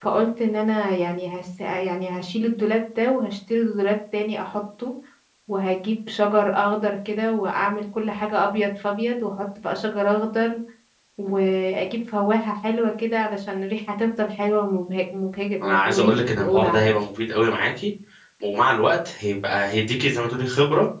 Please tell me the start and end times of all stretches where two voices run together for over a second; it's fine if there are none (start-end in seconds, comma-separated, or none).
15.6-16.9